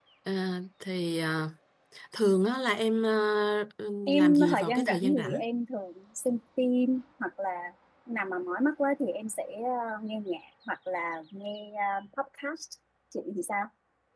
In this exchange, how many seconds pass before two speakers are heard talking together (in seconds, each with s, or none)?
4.1 s